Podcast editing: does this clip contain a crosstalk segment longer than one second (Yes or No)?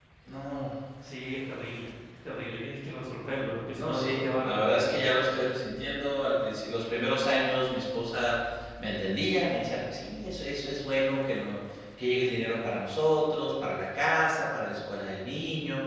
Yes